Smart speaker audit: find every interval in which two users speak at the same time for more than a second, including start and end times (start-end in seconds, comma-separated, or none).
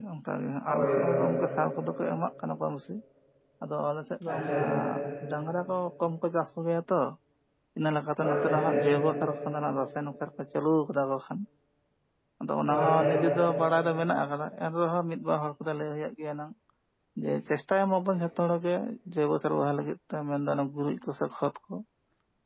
none